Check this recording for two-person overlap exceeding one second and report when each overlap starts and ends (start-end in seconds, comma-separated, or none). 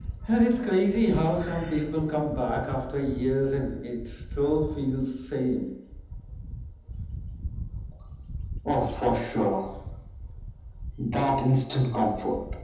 none